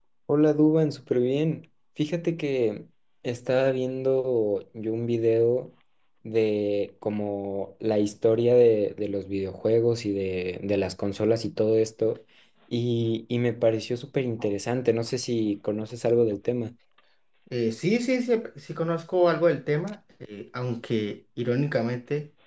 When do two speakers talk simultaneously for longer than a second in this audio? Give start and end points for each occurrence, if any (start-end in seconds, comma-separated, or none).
none